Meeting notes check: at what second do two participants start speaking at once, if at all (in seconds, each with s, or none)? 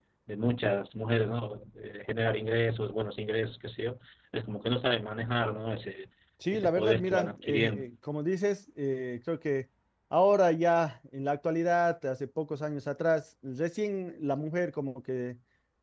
6.5 s